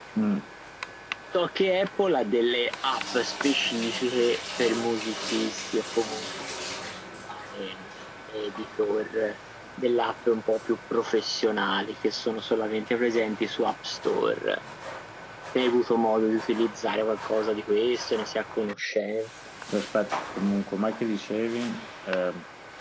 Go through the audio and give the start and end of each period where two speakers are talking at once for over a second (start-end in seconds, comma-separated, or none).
none